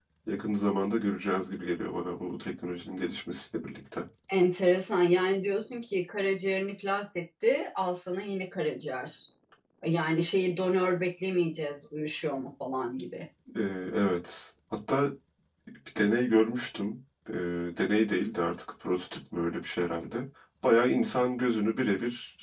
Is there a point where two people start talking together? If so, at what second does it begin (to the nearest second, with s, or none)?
none